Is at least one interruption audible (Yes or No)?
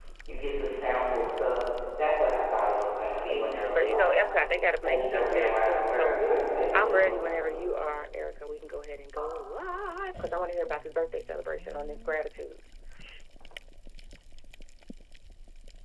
Yes